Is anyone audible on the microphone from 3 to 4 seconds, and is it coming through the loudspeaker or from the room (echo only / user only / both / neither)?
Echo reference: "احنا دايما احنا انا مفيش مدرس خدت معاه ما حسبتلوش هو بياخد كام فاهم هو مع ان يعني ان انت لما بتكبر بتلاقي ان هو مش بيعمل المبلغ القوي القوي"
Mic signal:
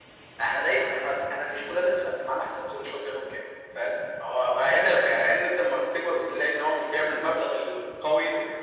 echo only